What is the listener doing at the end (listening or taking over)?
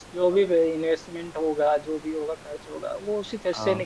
listening